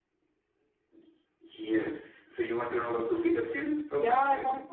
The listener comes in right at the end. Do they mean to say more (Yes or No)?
Yes